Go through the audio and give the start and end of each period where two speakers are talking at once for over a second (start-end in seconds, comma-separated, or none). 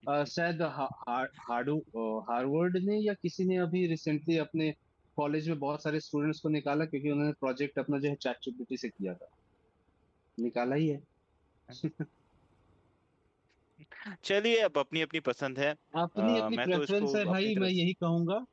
16.2-17.7